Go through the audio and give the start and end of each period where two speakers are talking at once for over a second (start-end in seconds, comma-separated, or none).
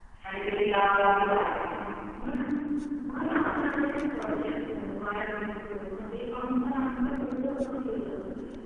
none